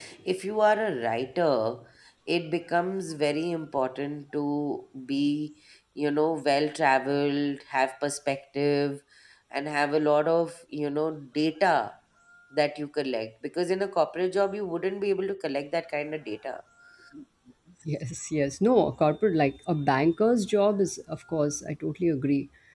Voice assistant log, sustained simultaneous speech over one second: none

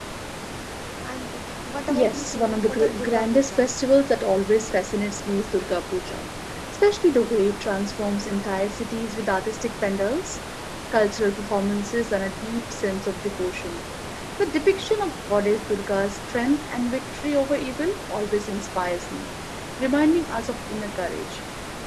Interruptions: present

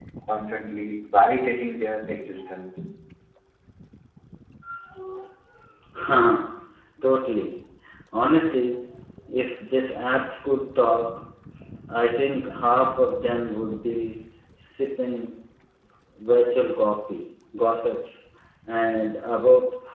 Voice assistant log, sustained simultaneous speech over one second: none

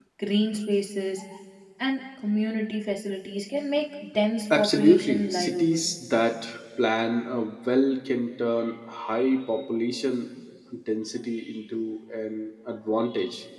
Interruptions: present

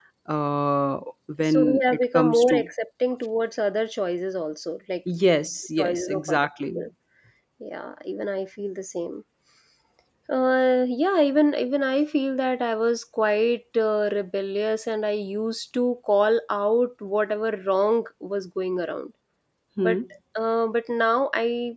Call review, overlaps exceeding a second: present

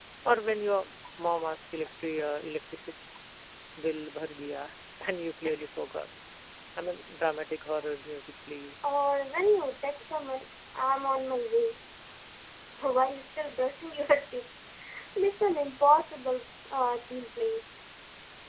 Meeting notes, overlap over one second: none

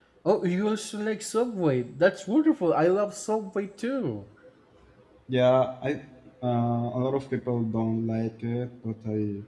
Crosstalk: none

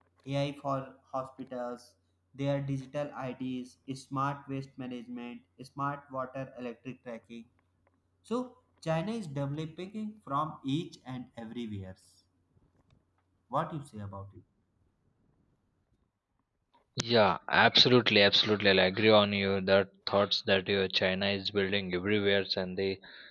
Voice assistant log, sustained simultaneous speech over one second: none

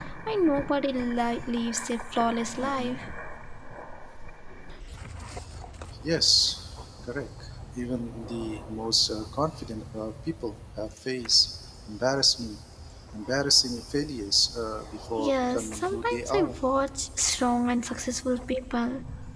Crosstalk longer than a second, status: present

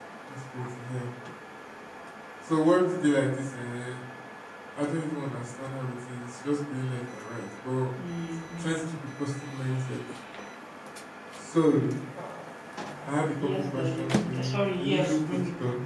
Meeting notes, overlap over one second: present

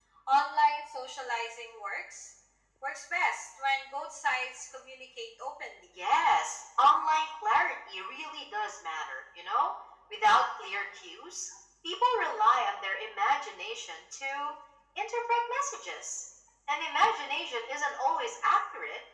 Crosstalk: none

